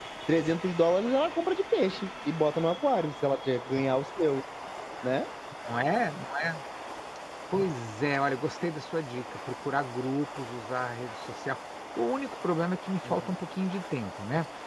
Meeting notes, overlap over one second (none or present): none